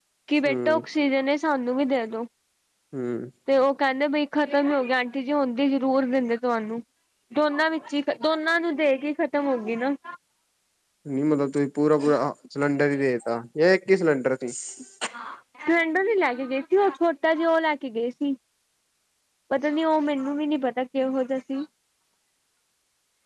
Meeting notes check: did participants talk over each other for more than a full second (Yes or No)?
No